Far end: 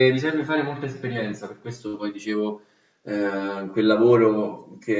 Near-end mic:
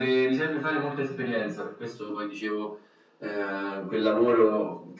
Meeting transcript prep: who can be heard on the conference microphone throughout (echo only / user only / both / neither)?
echo only